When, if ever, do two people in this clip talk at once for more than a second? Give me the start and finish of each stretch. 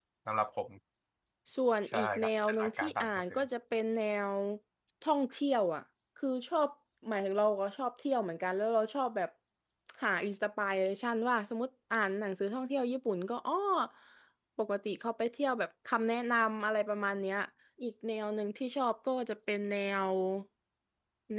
1.9-3.4

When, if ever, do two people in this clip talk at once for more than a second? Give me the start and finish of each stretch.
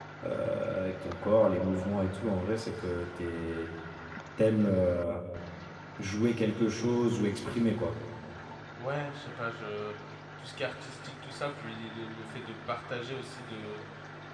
none

